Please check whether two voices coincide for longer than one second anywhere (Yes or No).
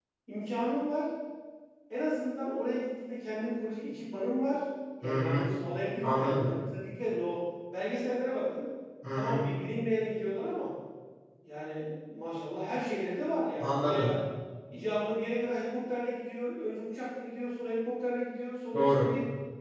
No